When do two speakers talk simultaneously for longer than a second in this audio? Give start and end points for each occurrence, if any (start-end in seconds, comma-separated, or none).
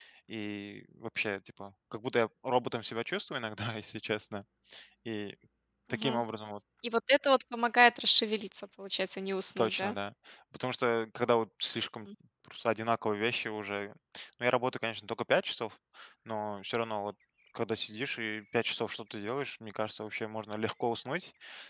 none